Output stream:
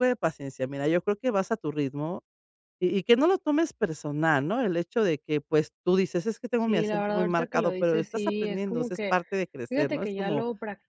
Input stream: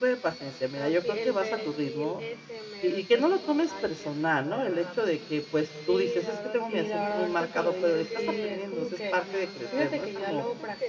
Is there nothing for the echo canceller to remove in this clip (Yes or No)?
No